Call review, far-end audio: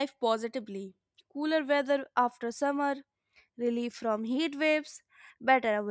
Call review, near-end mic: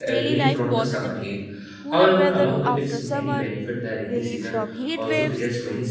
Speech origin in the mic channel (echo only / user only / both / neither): both